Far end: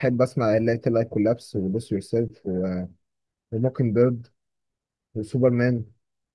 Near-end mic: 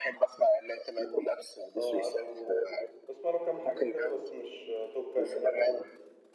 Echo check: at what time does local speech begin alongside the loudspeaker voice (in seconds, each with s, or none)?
1.8 s